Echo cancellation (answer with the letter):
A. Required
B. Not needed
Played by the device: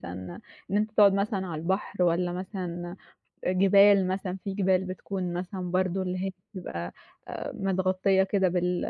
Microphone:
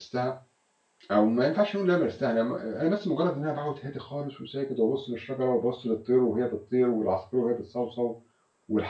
B